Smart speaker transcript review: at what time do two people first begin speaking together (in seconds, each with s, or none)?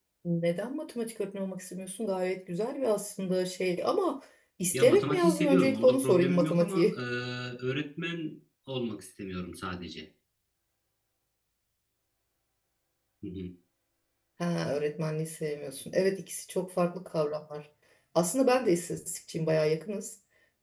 4.7 s